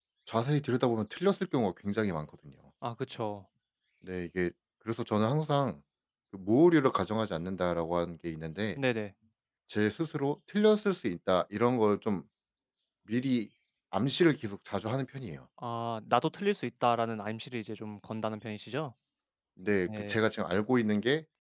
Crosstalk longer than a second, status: none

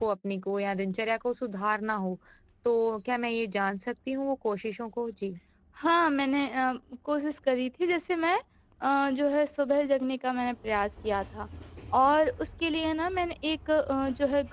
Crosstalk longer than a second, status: none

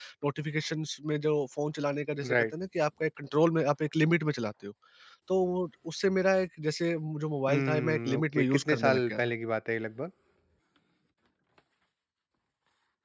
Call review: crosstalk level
present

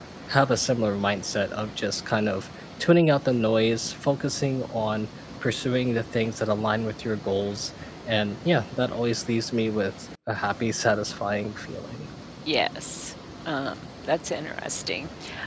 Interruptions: none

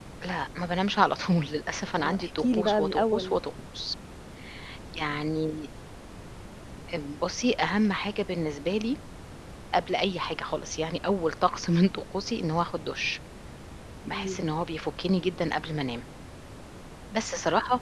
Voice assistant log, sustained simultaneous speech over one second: present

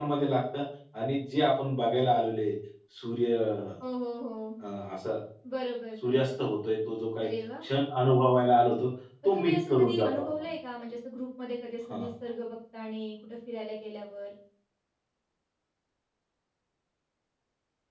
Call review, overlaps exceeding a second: present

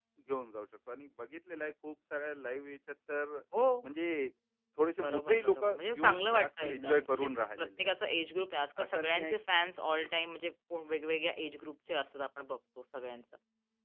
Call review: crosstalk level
present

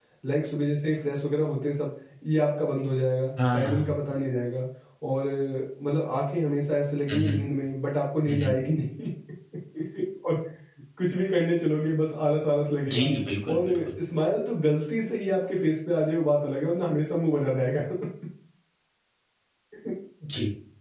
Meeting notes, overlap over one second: none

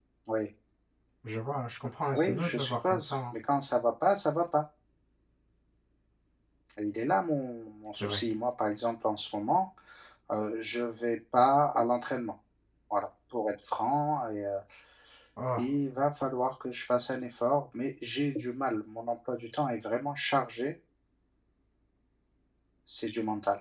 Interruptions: present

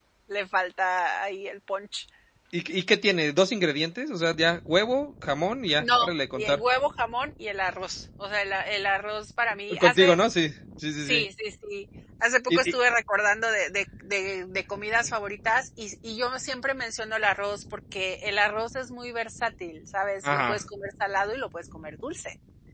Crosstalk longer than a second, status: none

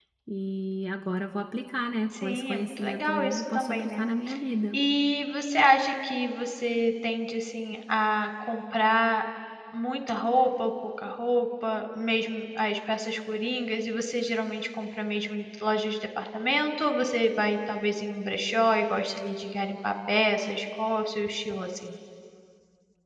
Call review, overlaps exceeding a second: present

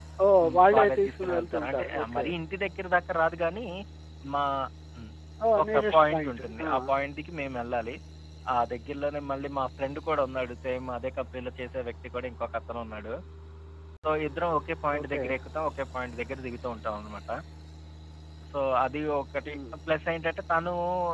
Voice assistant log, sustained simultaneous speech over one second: present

